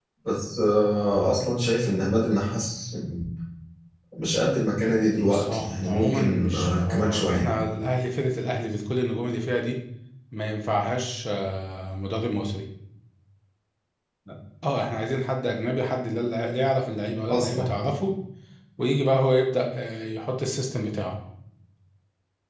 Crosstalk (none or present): present